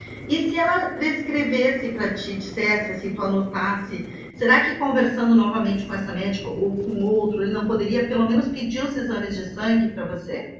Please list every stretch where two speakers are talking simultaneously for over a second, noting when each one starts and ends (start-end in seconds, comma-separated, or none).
none